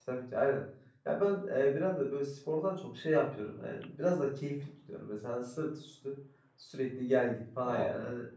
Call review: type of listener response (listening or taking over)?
listening